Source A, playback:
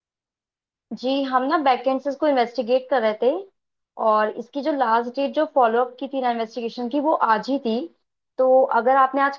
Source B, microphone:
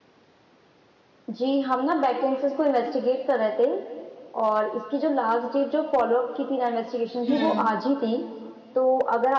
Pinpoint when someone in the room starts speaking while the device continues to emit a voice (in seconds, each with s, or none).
7.3 s